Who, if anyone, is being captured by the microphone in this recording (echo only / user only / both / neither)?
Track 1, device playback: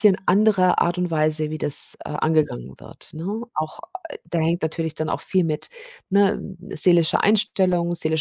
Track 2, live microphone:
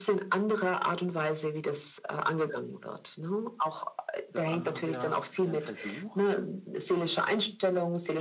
both